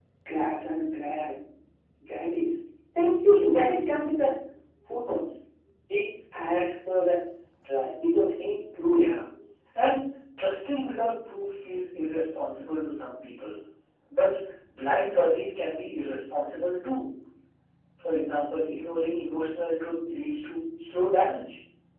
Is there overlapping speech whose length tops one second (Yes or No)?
No